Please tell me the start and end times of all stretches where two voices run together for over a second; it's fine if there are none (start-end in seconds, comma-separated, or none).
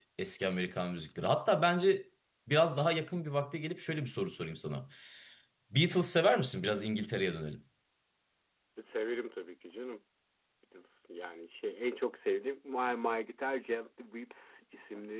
none